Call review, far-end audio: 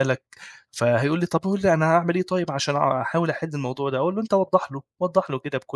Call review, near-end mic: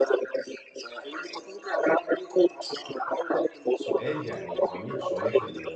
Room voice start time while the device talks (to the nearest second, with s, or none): 4 s